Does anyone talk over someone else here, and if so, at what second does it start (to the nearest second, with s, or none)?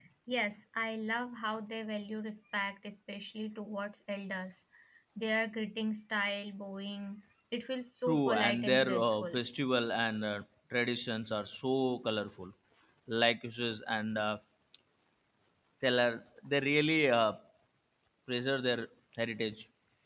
8 s